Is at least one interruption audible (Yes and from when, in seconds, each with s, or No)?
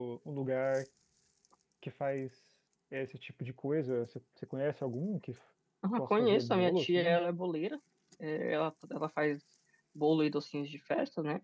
Yes, from 6.0 s